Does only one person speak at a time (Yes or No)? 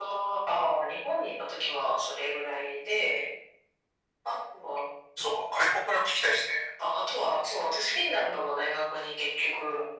Yes